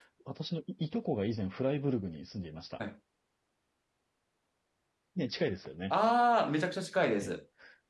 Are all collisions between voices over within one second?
Yes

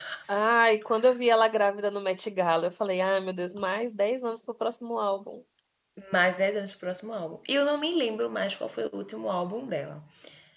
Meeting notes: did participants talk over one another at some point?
No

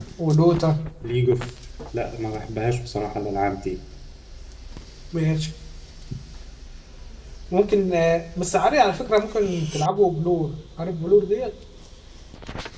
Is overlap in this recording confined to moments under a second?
Yes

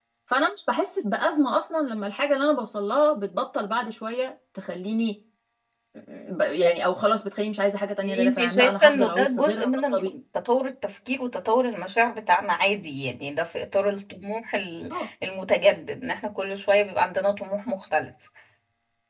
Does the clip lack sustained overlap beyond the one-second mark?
No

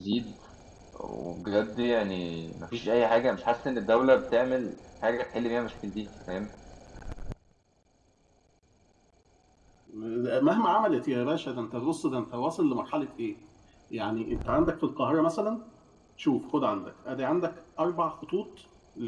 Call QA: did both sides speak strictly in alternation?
Yes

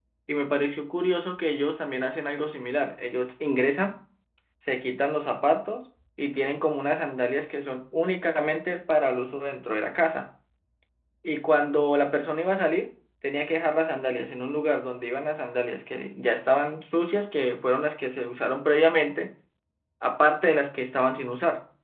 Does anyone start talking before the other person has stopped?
No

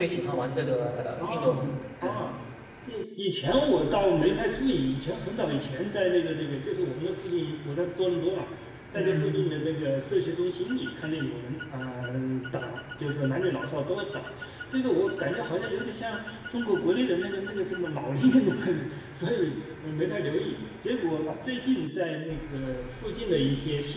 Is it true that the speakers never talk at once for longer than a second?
Yes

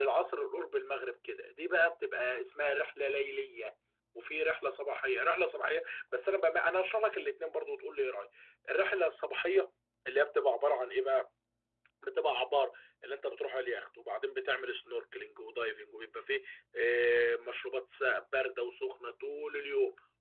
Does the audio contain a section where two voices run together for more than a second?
No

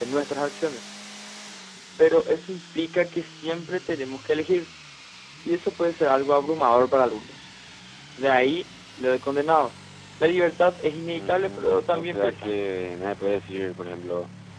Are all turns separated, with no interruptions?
No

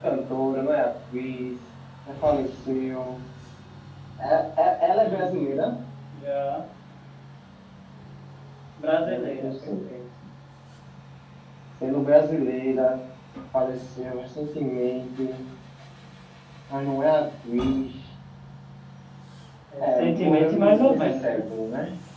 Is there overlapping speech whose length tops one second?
Yes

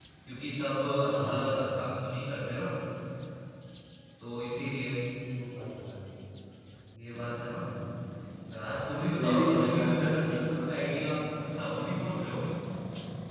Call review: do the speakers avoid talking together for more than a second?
No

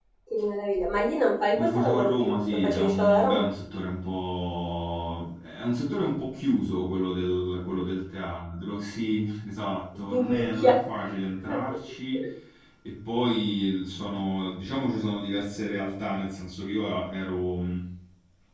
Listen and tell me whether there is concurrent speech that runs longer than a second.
Yes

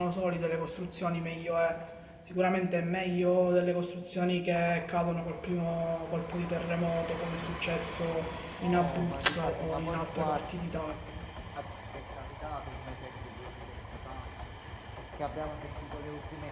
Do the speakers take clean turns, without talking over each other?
No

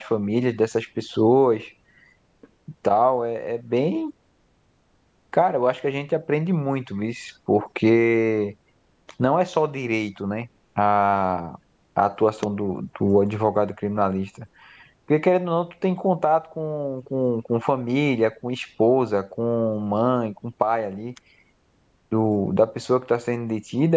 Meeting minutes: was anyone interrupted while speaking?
No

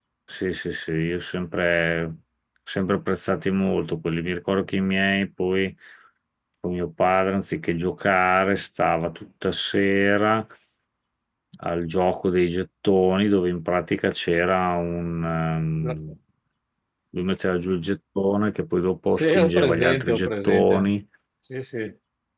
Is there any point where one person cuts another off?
Yes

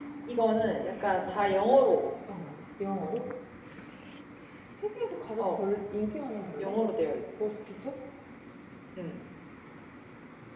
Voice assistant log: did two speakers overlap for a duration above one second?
No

